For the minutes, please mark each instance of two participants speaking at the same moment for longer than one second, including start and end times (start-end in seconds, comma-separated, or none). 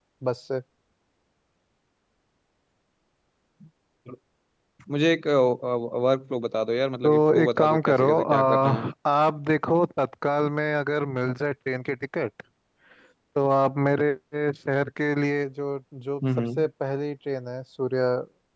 7.0-8.9